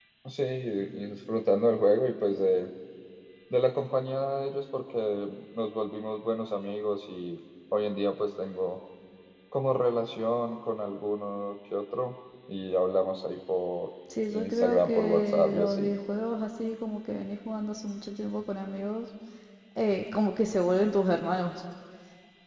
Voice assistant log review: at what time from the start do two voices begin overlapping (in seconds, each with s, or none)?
14.3 s